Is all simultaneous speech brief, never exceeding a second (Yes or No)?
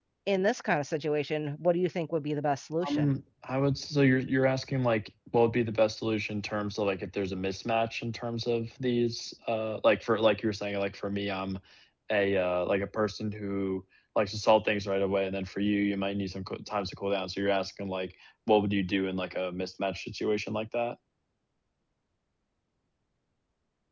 Yes